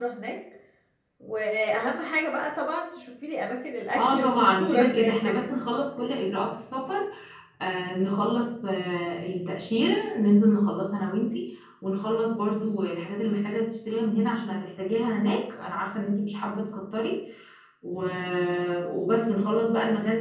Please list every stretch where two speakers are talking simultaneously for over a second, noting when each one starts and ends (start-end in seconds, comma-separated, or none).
4.0-5.5